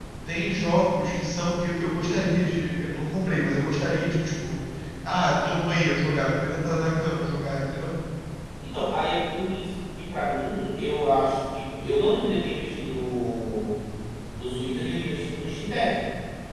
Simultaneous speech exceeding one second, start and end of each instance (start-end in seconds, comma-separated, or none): none